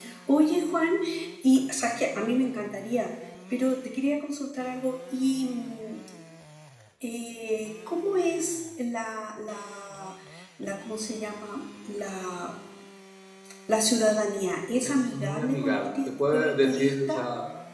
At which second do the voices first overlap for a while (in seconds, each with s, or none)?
14.8 s